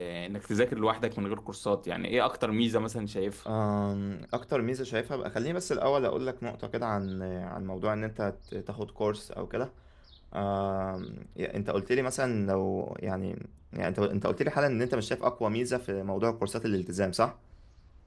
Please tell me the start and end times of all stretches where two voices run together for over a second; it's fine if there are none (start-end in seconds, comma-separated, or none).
none